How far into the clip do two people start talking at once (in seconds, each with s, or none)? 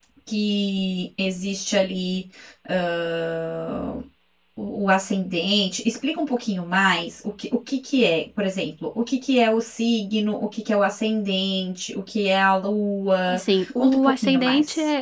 13.3 s